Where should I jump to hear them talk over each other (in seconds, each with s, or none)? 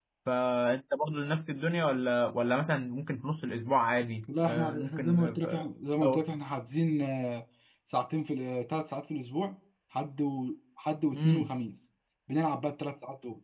4.4 s